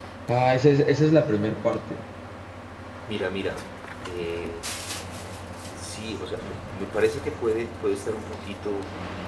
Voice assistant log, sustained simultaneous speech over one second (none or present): none